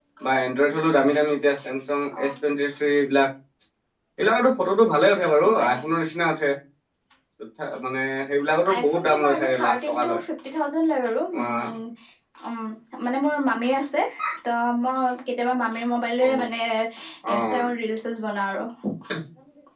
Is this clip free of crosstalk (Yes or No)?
No